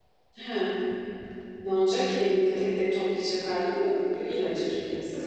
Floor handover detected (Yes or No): Yes